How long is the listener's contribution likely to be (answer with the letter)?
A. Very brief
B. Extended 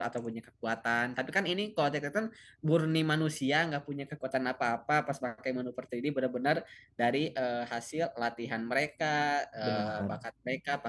A